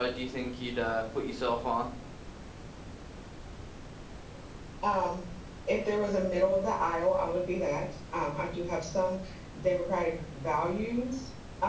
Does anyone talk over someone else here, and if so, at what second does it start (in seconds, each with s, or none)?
none